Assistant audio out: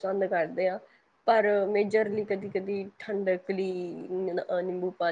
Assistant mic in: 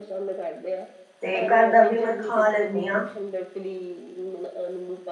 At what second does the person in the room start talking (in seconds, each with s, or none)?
1.2 s